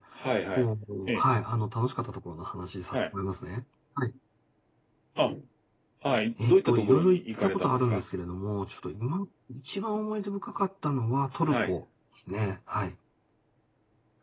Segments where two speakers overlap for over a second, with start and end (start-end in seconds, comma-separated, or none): 6.4-8.0